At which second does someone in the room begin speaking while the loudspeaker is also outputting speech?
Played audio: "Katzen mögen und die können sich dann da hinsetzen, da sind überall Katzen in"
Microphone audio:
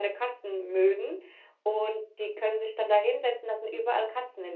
none

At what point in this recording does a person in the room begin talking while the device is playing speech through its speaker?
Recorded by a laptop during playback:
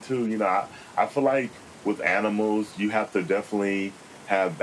none

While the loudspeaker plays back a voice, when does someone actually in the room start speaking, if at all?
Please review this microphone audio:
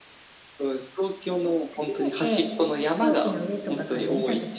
1.7 s

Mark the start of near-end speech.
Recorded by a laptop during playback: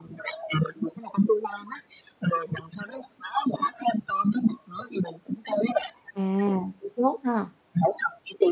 6.1 s

